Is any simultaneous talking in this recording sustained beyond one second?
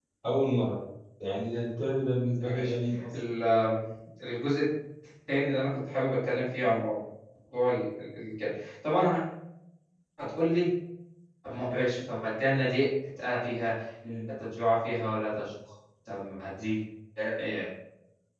No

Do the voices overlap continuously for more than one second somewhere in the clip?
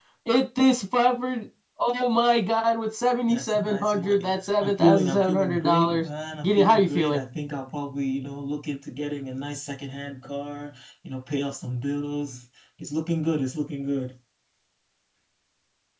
Yes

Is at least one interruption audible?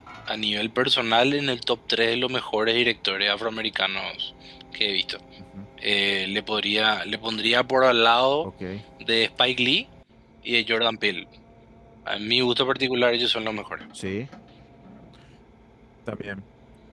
No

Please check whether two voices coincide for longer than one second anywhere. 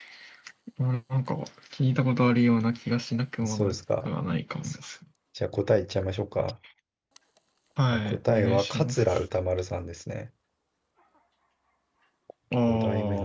Yes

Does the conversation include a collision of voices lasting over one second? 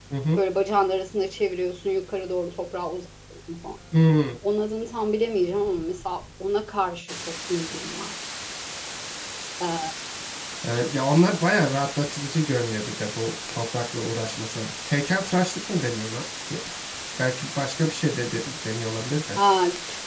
No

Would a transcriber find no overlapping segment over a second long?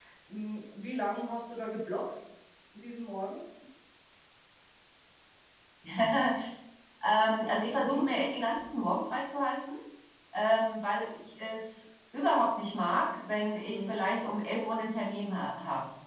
Yes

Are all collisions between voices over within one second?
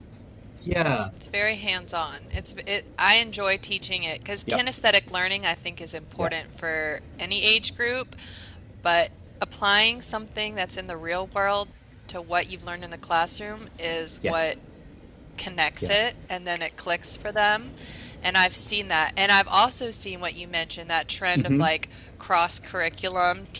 Yes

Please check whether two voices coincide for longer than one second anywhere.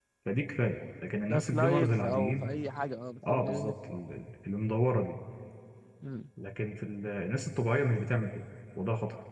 Yes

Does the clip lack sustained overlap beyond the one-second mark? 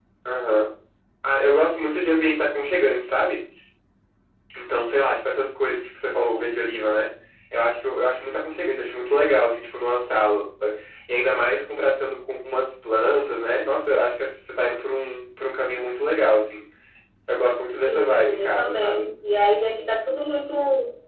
No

